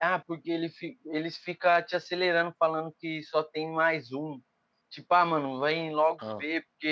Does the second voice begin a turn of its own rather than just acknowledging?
No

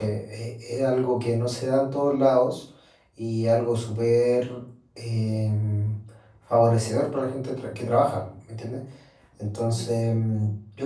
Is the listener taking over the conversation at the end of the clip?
No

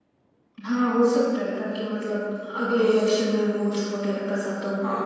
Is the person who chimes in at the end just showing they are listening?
No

